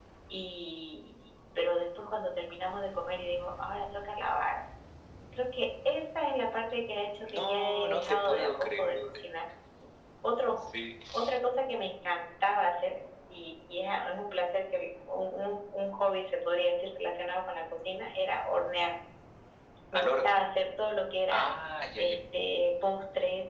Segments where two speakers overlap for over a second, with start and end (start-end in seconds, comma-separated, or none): 7.3-8.9